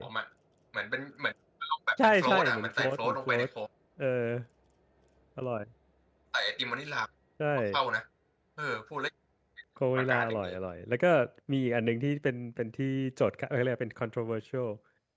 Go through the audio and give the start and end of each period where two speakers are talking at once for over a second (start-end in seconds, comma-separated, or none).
2.0-3.5